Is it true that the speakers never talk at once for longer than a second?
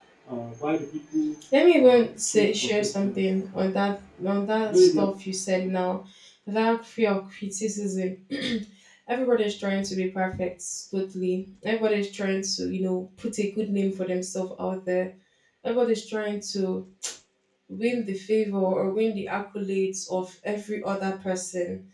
No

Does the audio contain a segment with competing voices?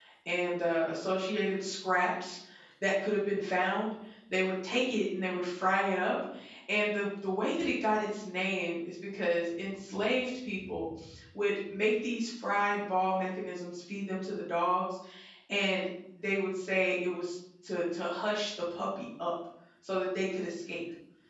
No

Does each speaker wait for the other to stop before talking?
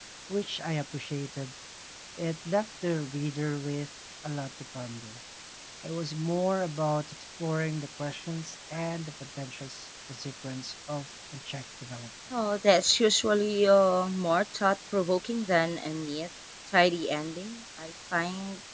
Yes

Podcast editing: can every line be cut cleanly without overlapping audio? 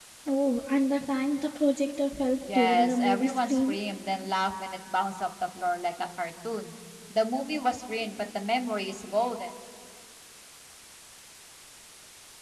No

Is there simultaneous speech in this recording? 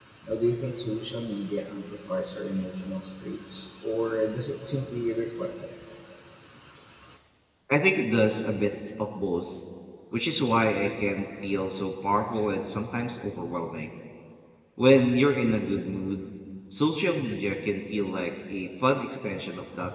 No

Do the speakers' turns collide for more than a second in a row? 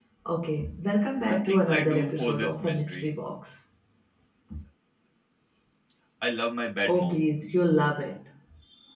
Yes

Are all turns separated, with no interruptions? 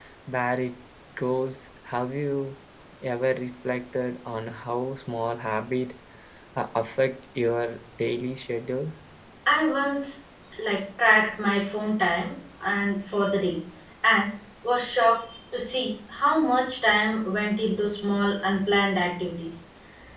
Yes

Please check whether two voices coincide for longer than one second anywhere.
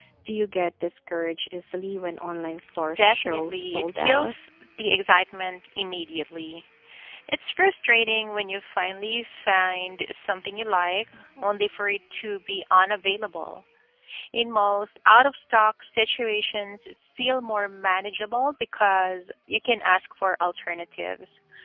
Yes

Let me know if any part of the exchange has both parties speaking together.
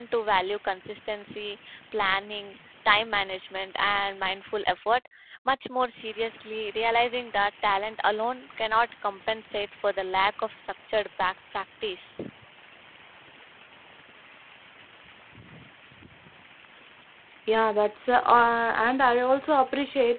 No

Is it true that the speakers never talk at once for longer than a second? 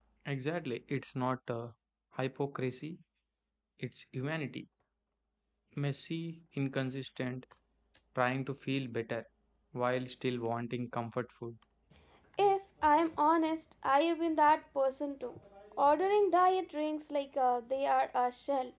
Yes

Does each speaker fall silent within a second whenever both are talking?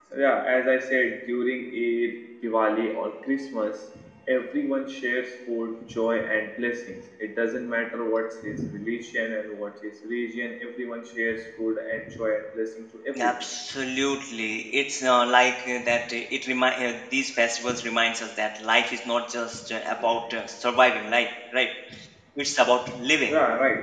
Yes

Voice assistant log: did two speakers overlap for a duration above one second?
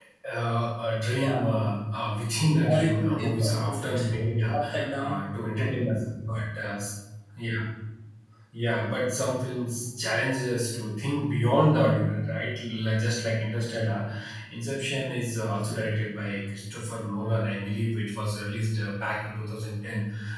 Yes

